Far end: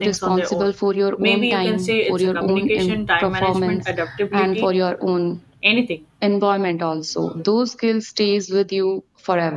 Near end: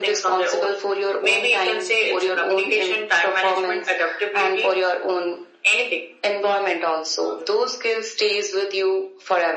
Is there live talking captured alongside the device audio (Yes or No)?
No